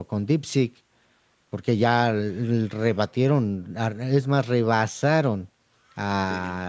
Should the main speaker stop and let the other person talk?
No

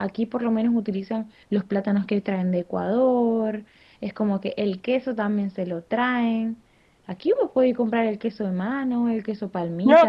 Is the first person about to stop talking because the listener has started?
Yes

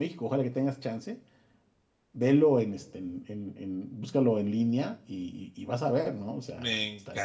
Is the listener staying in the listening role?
No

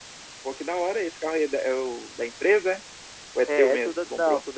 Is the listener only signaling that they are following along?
No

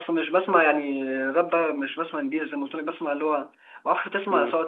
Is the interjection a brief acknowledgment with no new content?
Yes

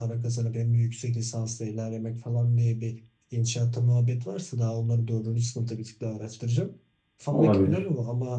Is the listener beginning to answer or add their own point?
No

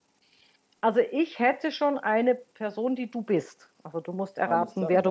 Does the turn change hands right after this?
Yes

